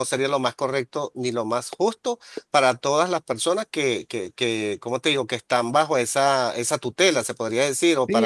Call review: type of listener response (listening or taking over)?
taking over